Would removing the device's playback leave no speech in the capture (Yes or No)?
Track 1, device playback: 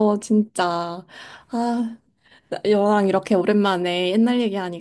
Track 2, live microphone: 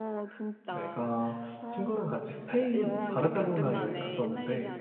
No